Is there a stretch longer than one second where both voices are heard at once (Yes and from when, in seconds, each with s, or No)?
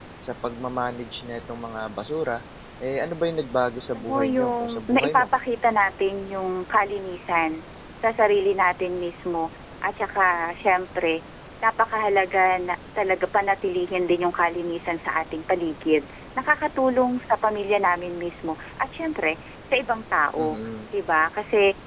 Yes, from 3.9 s